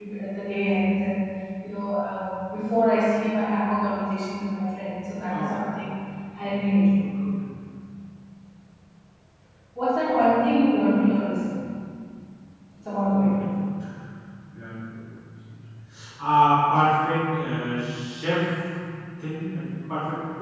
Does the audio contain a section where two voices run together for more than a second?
No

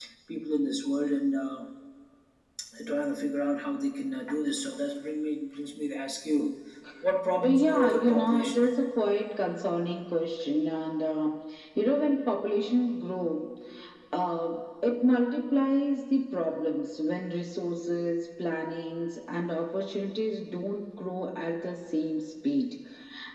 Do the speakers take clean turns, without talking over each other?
No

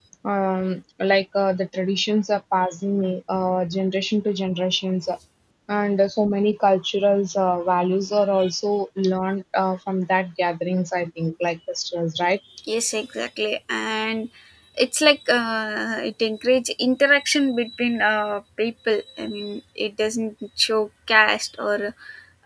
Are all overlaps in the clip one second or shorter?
Yes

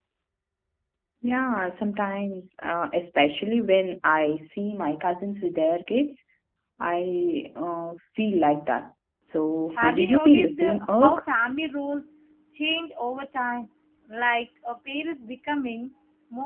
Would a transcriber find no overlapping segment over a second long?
No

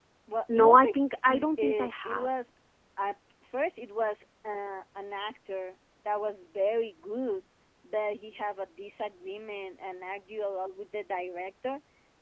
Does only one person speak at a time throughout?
No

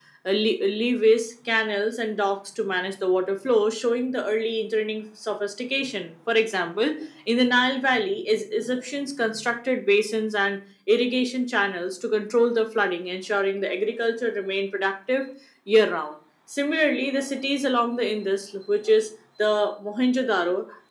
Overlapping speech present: No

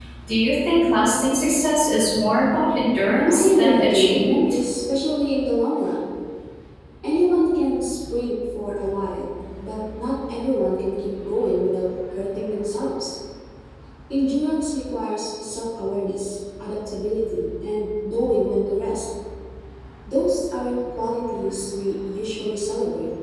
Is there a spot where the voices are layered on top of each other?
Yes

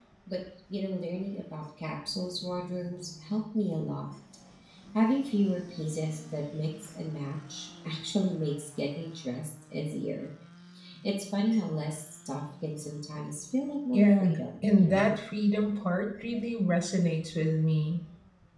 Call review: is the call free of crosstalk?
No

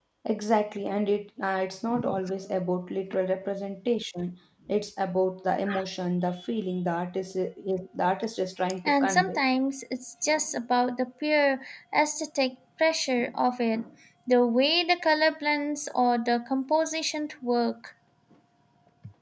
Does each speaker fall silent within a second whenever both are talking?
Yes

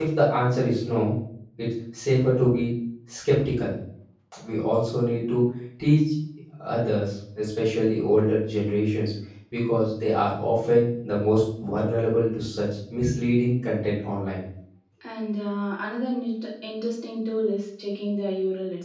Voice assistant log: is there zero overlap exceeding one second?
Yes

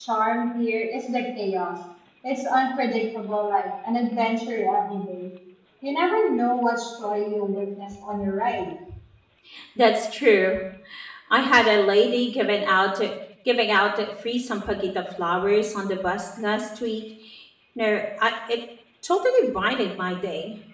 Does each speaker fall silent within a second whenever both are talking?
Yes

